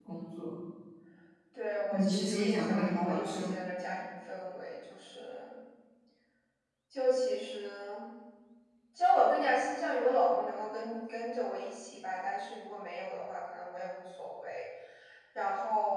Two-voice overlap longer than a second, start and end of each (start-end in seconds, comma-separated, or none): 1.9-3.5